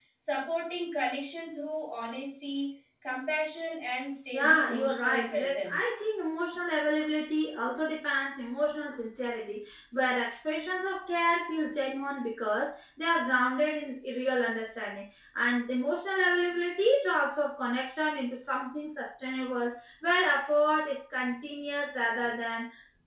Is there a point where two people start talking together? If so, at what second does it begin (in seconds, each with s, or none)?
4.3 s